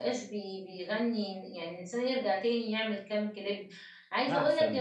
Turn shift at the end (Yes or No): No